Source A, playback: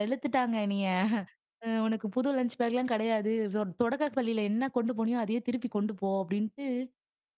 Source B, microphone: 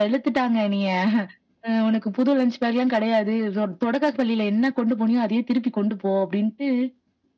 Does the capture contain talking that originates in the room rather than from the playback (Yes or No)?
No